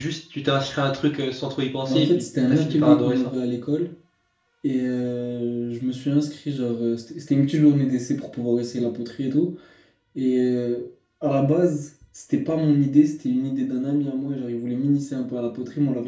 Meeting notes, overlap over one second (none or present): present